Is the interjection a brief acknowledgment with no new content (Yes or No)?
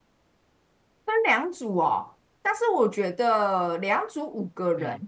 Yes